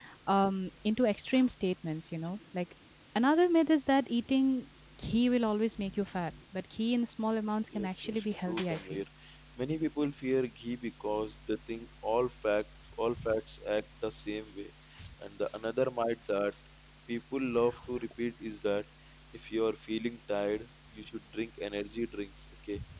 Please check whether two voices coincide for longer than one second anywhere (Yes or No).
Yes